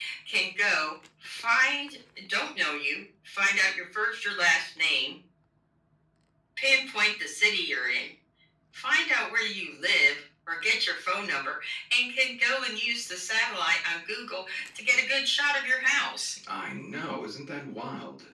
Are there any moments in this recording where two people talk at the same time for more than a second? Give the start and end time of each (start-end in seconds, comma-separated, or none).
none